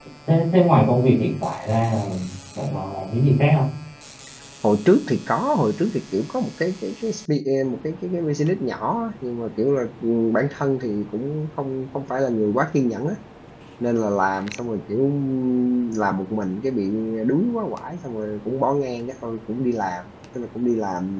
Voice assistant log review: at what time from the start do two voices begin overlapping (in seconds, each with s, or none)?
none